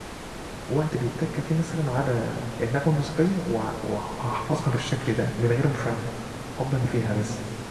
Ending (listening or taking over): taking over